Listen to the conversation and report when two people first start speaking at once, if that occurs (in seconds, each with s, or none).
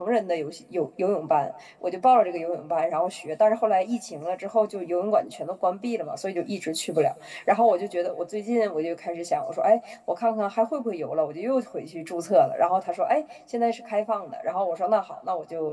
none